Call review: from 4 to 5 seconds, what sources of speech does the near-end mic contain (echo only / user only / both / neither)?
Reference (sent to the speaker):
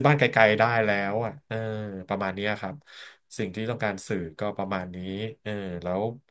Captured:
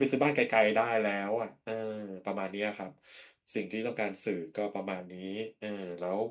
echo only